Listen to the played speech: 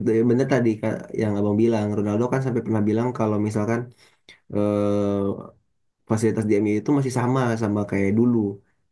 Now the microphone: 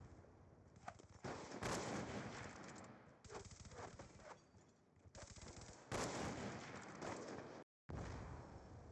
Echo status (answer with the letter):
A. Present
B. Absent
B